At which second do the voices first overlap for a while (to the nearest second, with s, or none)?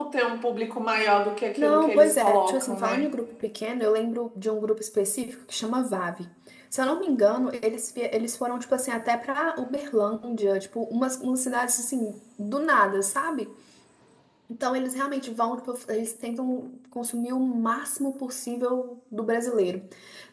2 s